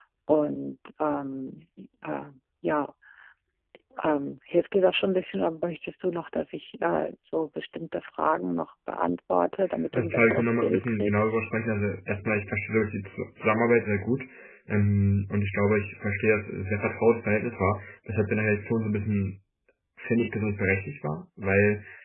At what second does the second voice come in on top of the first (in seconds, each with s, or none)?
9.9 s